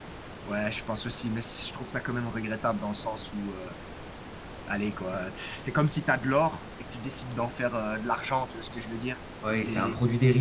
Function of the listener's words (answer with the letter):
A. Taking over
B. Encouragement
A